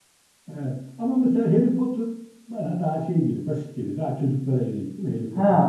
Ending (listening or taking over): taking over